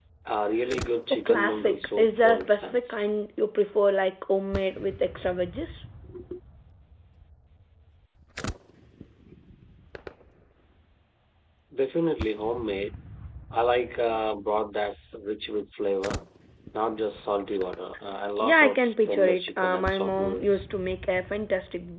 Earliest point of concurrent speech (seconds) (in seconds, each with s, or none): 1.1 s